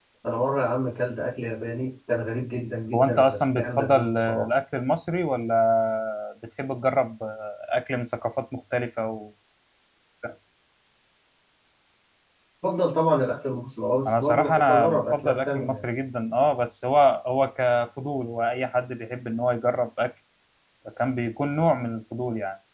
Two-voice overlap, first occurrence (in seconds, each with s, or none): 2.9 s